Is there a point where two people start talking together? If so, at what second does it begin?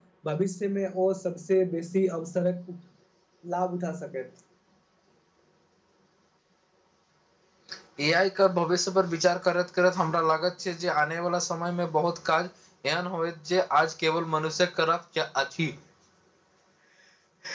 none

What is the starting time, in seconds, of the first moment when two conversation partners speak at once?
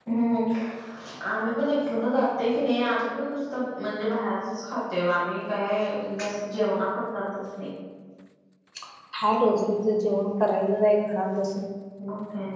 none

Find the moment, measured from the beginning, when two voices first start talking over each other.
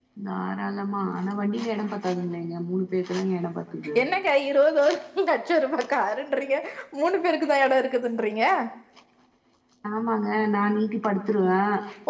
none

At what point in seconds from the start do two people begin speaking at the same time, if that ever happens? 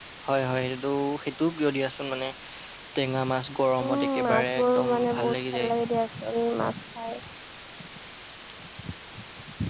4 s

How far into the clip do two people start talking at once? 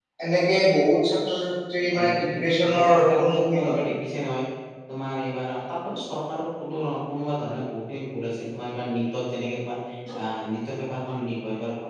2 s

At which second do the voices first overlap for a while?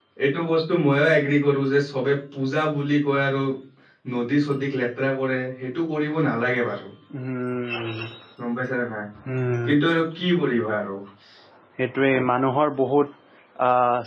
none

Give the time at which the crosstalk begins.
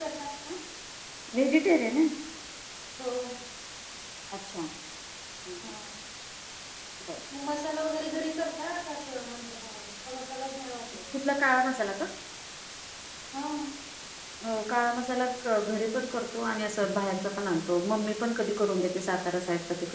none

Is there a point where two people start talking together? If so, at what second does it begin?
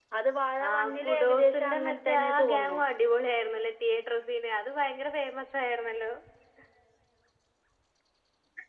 1 s

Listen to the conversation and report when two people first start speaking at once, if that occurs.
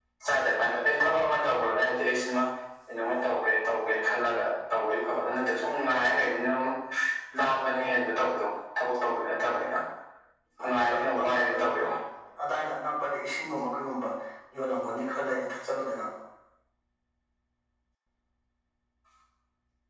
11 s

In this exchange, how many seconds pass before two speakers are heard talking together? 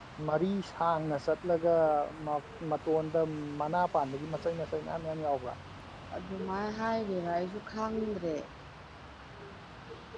none

